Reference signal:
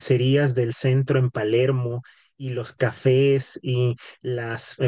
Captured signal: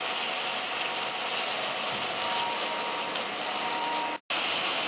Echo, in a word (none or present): none